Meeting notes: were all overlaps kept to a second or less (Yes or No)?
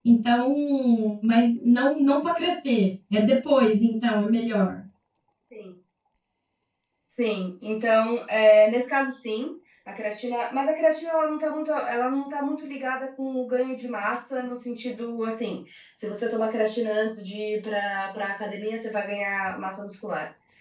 Yes